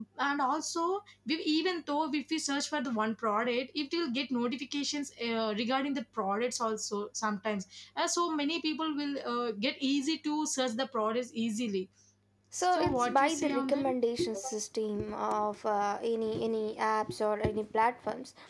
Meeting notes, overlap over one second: present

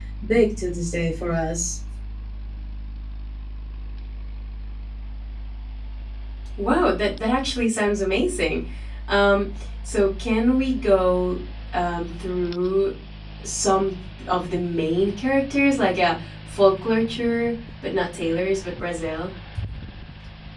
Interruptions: none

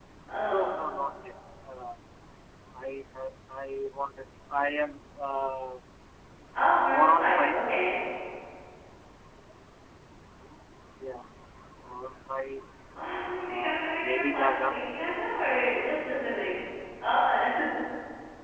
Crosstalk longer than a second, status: present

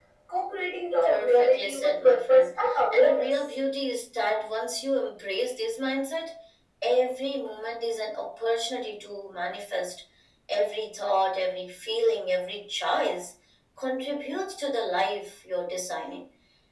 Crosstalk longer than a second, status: present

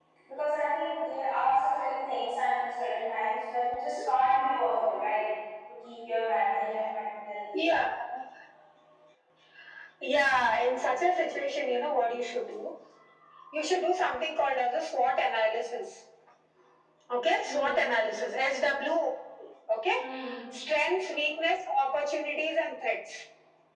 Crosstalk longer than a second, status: none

